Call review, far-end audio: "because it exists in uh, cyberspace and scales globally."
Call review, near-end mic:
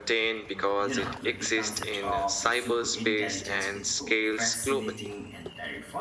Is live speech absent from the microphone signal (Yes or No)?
No